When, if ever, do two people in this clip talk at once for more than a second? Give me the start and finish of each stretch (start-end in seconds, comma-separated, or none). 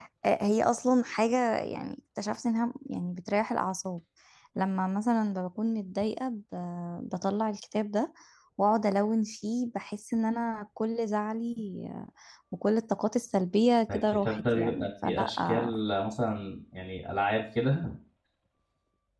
13.9-15.7